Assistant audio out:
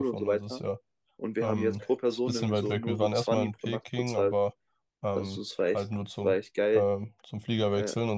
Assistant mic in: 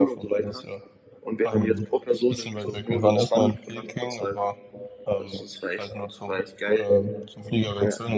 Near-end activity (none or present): none